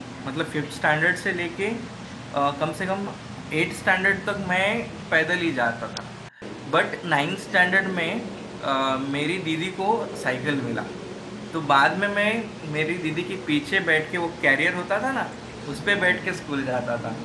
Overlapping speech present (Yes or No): No